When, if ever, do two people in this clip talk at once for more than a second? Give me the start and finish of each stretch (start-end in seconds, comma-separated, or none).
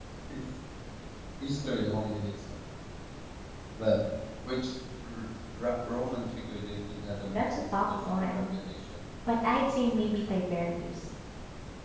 7.3-8.5